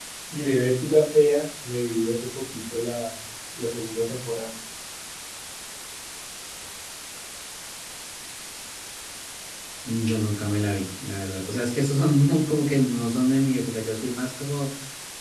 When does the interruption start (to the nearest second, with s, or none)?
none